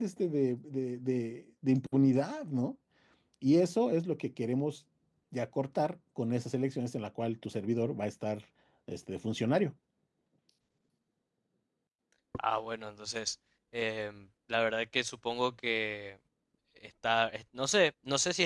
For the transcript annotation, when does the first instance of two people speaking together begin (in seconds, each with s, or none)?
none